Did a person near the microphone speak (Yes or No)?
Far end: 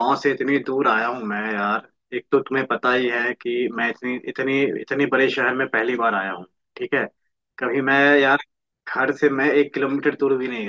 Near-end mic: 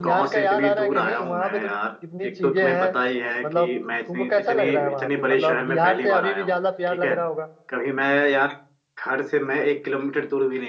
Yes